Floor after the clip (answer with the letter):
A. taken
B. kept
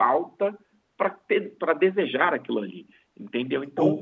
A